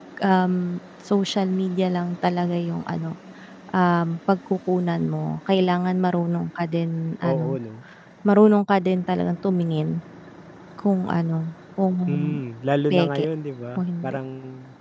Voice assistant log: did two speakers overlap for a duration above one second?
No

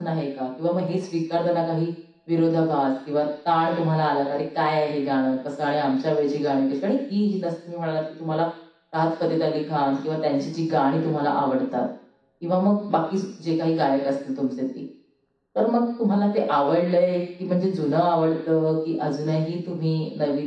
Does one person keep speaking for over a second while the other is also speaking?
No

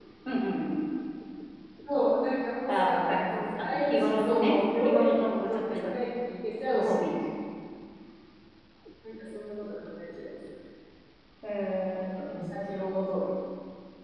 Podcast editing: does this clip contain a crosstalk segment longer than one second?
Yes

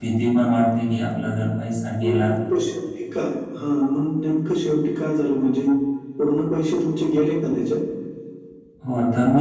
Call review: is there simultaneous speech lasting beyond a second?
No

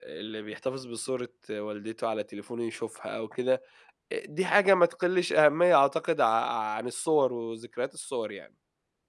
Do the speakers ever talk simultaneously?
No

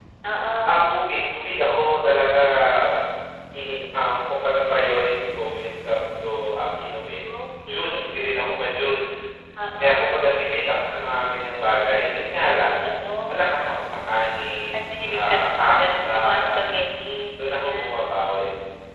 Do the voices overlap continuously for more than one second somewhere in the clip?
Yes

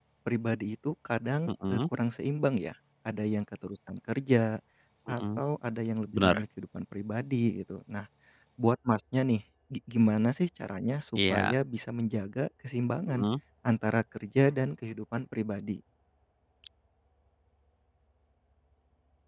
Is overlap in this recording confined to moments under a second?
Yes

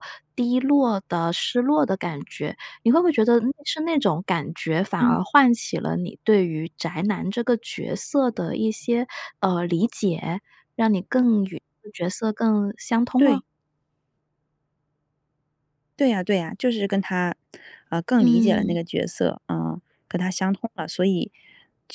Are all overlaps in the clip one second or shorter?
Yes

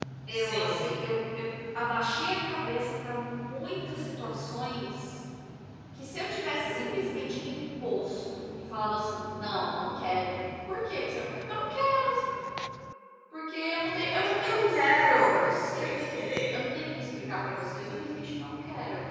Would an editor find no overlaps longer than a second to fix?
No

